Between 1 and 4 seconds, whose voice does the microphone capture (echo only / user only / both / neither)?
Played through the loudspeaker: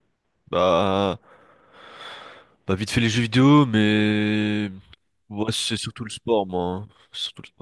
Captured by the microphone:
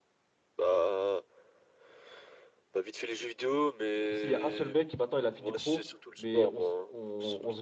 echo only